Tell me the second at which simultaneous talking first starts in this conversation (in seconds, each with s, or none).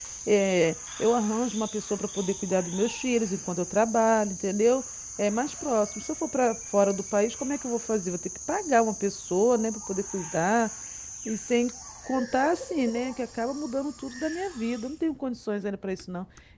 none